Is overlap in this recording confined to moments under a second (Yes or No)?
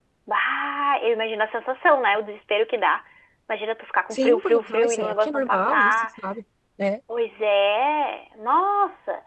No